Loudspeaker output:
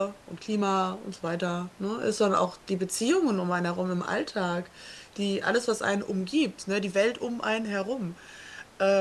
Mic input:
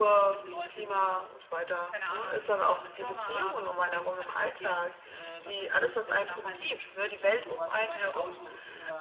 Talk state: both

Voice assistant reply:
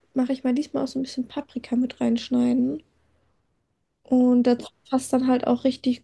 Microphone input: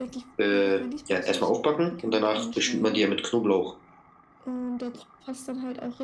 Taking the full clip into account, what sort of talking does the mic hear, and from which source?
both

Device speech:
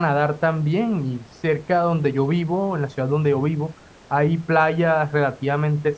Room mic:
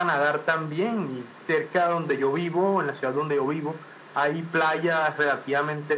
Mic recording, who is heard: echo only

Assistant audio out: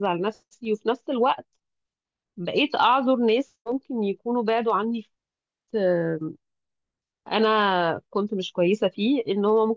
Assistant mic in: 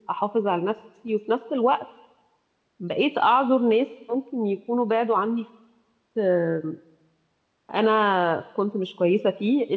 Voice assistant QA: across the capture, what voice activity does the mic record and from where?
echo only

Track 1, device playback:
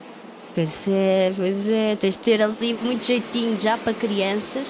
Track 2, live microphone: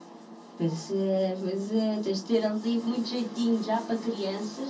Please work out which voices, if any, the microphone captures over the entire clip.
echo only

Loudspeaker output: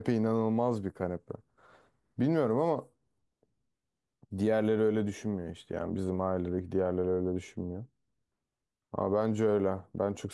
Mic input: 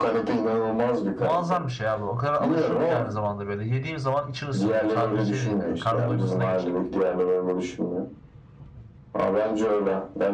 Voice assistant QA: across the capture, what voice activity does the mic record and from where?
both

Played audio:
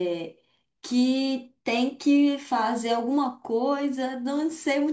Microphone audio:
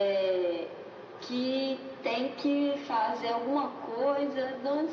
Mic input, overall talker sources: echo only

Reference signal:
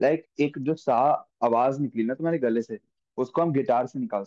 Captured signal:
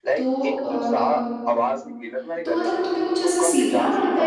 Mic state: both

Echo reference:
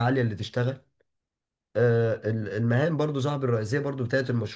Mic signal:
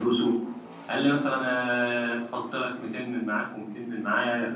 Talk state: user only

